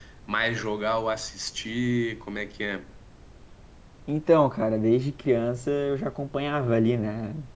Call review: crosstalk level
none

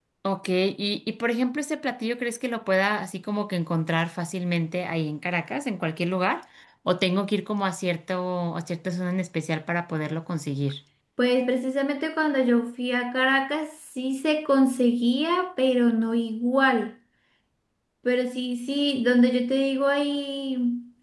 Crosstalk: none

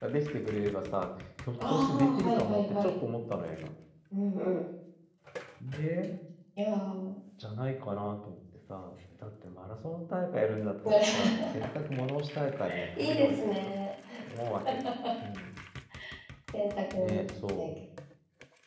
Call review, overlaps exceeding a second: present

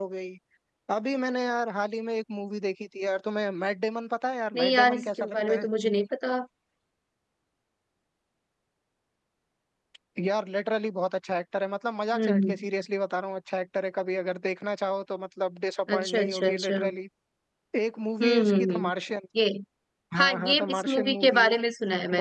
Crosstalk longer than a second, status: present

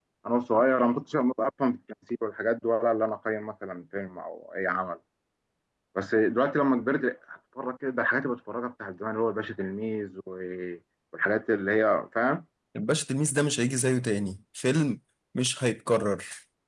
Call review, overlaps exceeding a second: none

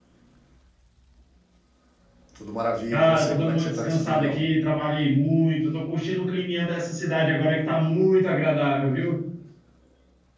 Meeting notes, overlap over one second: present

